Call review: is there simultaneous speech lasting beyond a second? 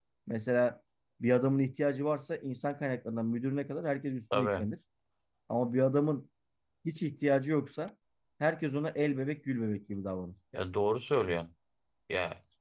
No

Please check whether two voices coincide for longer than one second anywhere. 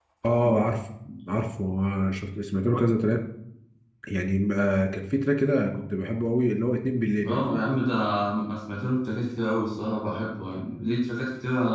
No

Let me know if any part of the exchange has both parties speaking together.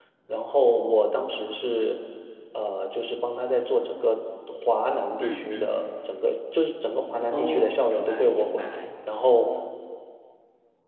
Yes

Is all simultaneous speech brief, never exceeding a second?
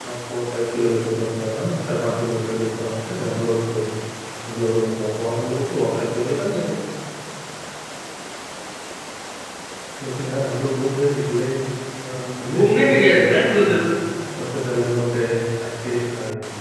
No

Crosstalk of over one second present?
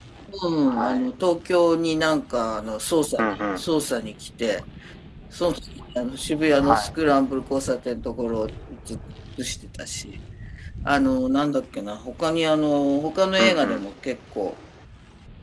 No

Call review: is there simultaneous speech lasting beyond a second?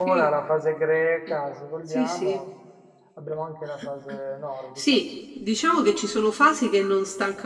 No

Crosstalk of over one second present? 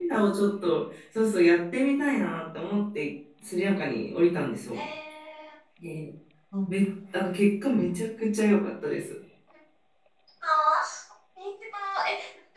No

